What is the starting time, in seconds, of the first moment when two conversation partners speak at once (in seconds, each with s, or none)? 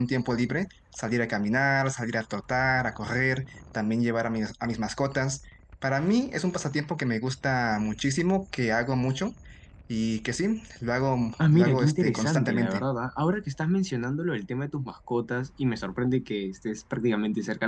11.4 s